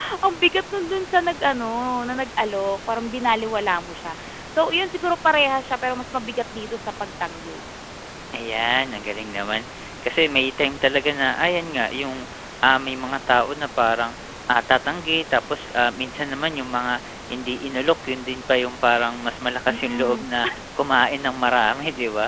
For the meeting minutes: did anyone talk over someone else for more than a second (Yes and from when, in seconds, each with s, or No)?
No